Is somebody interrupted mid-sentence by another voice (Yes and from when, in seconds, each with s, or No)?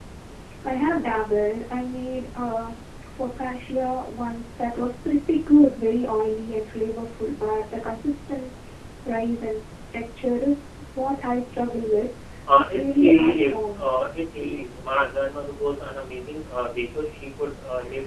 Yes, from 12.6 s